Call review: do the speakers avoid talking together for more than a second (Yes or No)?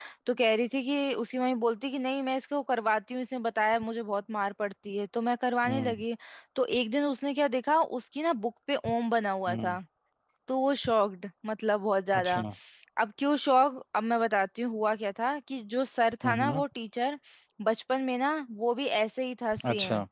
Yes